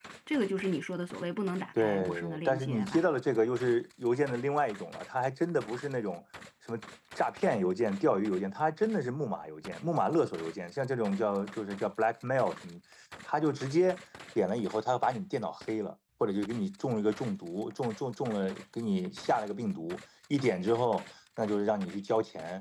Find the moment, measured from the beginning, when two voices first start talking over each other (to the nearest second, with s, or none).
2 s